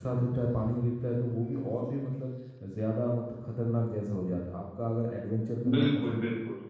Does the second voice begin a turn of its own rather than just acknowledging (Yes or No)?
No